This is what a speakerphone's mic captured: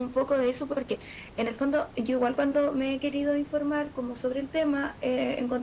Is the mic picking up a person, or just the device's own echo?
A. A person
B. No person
B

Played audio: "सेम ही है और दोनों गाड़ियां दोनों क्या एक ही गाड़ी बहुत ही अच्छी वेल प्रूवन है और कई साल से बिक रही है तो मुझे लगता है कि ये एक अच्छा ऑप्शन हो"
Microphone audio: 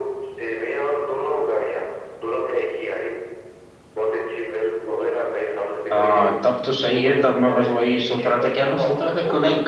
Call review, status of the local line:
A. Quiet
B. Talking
B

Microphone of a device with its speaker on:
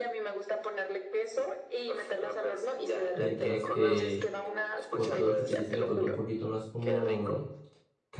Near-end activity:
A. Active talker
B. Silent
A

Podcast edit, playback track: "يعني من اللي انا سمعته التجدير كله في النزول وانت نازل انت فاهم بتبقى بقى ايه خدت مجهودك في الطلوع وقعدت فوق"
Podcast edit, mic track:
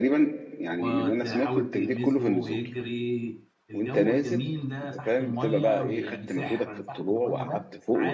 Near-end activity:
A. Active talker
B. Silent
A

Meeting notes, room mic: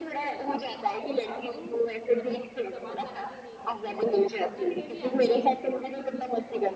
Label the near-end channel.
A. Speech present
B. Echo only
A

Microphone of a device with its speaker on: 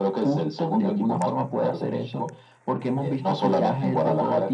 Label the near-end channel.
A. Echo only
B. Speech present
A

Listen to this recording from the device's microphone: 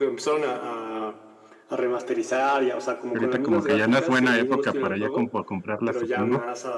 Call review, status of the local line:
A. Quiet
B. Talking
B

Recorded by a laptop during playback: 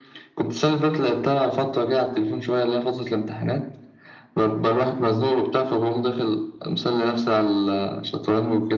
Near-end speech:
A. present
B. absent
B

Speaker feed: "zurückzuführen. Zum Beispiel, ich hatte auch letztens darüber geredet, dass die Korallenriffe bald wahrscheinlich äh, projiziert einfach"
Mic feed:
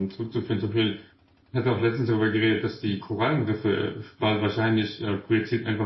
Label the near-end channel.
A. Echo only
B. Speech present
A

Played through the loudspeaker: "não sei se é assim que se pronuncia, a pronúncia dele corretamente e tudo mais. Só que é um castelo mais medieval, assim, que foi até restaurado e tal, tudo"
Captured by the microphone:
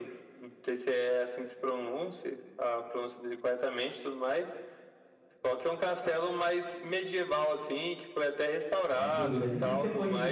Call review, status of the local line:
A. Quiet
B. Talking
B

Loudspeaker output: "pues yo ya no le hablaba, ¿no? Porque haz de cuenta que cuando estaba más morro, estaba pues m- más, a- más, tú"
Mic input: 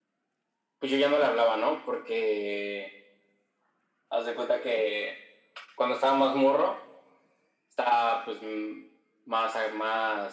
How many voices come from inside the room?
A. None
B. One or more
A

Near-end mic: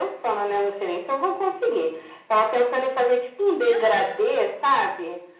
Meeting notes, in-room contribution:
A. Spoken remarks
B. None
A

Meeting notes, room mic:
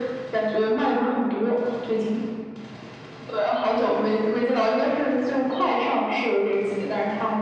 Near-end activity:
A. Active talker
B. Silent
B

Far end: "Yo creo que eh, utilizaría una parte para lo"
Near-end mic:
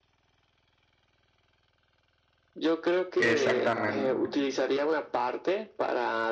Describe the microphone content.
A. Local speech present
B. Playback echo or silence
A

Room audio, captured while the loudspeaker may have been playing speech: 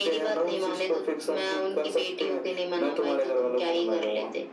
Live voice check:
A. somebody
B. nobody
B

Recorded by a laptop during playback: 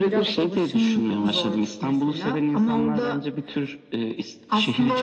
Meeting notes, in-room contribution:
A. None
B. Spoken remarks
A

